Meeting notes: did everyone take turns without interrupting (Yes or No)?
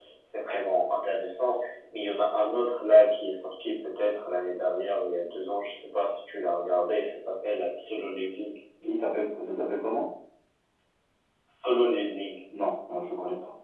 Yes